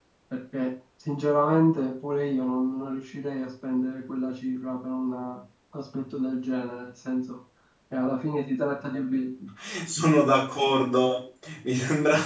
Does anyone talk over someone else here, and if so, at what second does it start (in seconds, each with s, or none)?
none